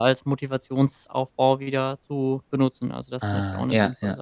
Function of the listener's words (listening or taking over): taking over